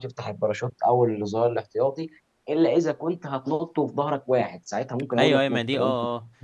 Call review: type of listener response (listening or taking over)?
taking over